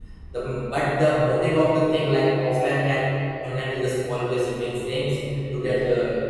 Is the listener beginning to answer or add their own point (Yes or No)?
No